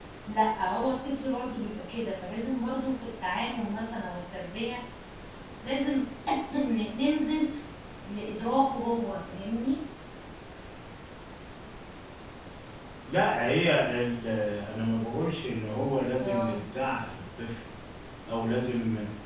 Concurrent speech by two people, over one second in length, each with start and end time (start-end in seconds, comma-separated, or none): none